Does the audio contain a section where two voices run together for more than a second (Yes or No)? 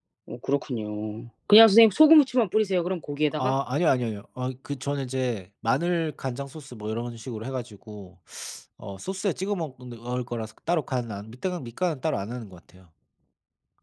No